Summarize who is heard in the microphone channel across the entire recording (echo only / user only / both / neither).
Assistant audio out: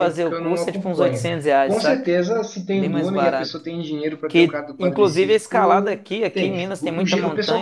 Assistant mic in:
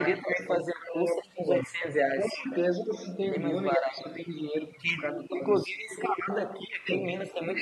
echo only